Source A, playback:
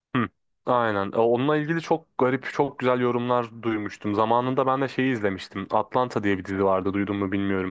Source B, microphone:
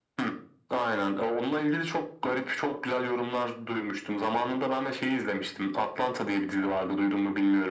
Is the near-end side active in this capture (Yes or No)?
No